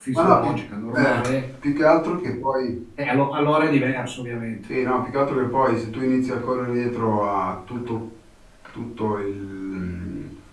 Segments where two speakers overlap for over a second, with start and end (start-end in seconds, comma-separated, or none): none